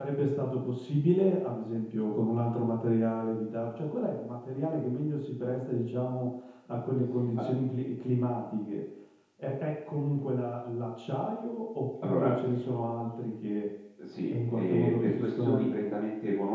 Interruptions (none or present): present